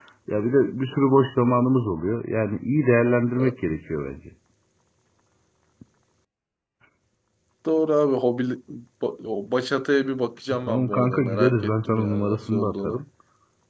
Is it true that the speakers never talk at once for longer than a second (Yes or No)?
No